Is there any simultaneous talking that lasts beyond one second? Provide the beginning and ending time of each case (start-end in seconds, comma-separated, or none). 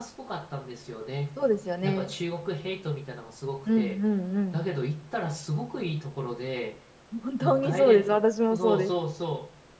7.4-8.9